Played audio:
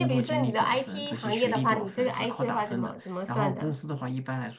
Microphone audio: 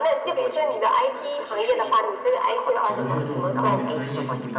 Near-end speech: present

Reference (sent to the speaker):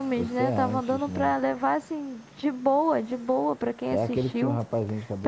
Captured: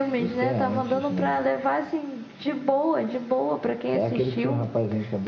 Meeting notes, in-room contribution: none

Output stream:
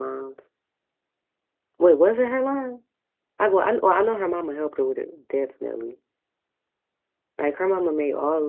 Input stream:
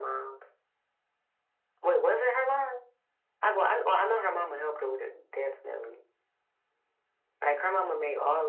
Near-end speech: none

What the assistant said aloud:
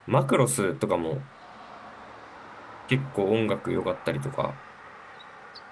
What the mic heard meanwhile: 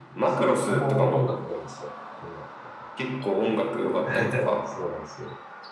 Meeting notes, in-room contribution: present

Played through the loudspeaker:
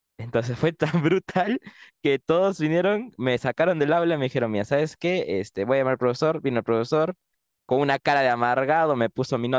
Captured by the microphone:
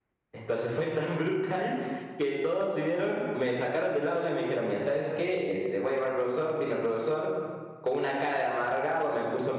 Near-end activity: none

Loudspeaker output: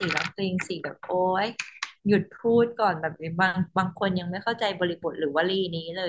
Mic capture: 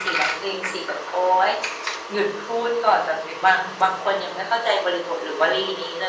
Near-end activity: none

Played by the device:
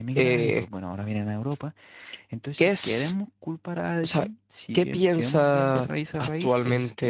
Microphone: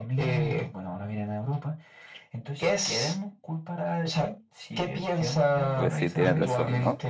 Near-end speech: present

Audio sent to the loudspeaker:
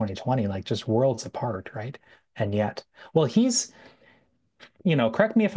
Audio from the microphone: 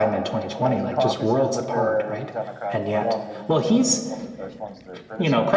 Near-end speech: present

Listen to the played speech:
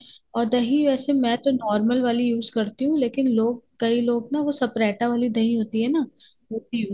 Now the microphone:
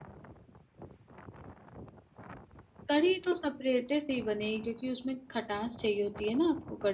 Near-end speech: present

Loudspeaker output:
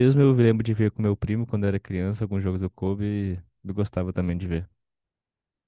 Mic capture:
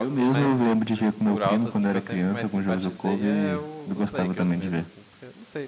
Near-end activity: present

